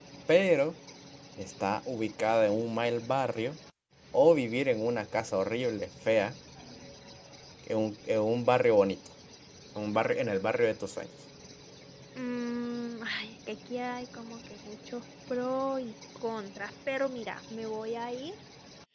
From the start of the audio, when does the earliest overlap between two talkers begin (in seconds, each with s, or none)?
none